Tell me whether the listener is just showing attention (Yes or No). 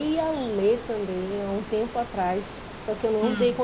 Yes